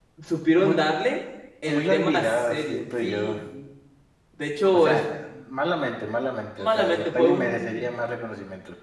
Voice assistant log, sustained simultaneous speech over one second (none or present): present